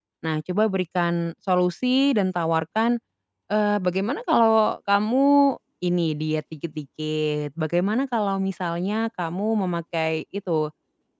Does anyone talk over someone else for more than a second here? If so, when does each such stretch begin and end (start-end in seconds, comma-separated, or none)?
none